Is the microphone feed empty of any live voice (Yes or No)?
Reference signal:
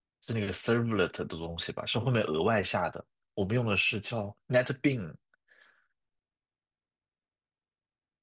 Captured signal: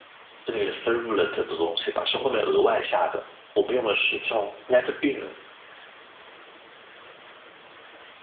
Yes